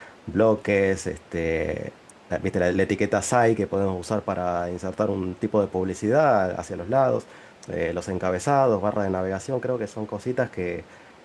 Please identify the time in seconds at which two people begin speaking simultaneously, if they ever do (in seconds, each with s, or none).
none